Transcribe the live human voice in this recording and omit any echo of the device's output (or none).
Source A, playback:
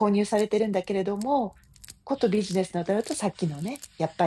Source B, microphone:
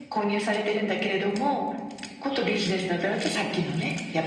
none